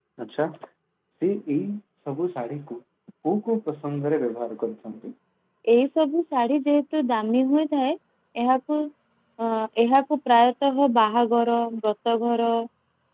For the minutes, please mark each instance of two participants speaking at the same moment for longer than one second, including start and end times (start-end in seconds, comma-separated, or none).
none